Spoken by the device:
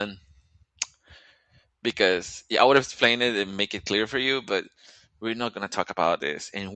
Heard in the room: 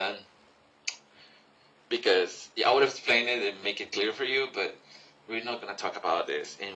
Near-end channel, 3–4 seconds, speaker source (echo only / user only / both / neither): echo only